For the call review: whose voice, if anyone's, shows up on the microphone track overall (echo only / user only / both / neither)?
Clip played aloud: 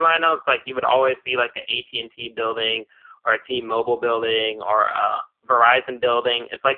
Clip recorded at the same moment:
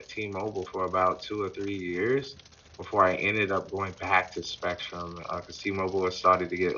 user only